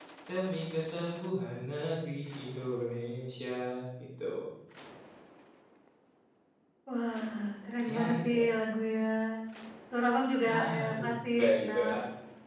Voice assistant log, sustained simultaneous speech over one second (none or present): present